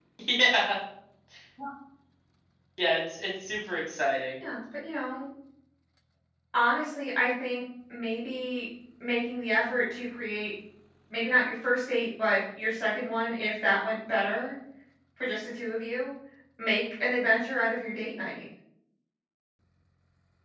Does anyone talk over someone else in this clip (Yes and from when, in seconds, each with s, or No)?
No